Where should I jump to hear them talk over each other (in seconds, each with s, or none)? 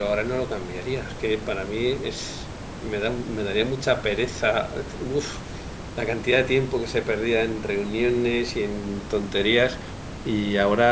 none